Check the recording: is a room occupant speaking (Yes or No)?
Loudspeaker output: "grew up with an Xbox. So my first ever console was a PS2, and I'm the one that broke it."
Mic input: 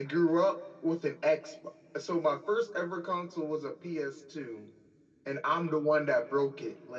No